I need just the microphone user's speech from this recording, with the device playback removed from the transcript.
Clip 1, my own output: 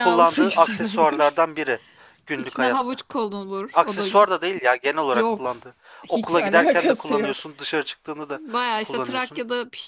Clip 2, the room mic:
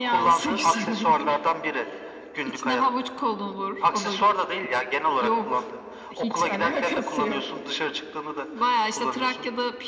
none

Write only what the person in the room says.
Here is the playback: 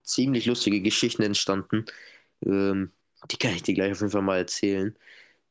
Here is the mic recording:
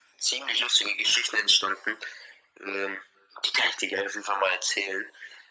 none

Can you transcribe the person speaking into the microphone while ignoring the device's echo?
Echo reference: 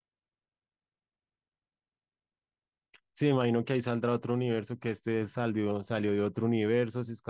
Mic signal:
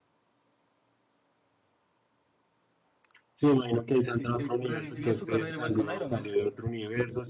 sí. eh, revivió su carrera igual con Iron Man.

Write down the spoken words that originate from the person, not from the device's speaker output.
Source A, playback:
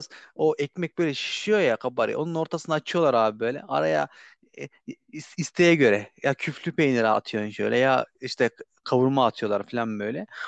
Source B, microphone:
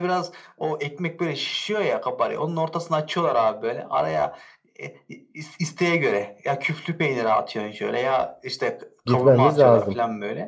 Gitmemiz lazım.

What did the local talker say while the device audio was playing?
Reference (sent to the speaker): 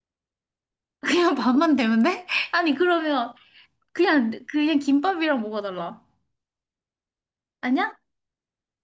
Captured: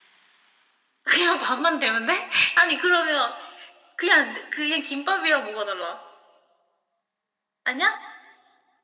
none

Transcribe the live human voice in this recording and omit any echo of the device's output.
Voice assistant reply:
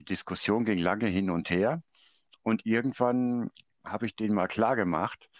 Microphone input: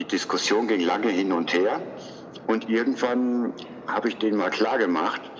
none

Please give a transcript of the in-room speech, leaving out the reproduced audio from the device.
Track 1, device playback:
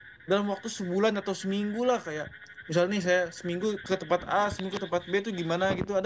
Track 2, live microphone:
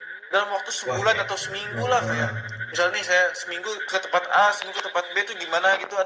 Wah, enak dong. Ah.

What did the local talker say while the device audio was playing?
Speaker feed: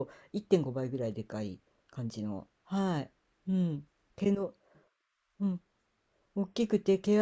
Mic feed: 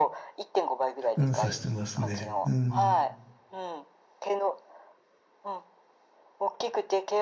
うん、さしてますね。うん、

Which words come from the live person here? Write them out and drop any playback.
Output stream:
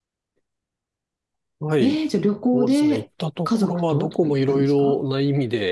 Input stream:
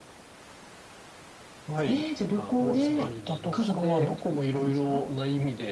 あ、あの、パリに移動して、

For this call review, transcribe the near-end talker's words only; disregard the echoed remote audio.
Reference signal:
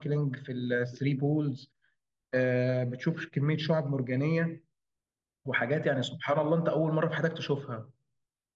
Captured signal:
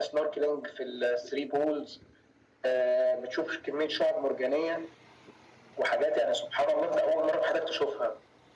none

